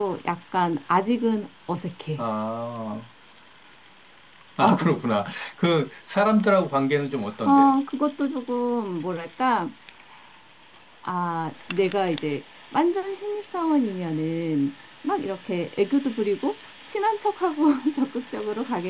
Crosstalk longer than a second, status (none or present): none